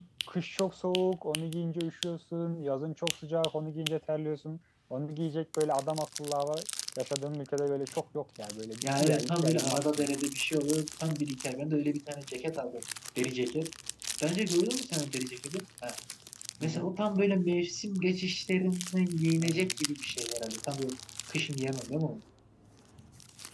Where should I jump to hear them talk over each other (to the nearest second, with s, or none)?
9 s